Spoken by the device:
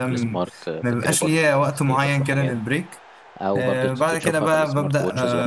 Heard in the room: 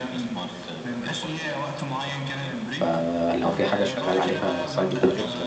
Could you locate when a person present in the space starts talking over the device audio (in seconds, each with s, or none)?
2.7 s